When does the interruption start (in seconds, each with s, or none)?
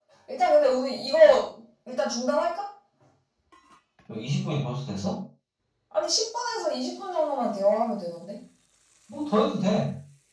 none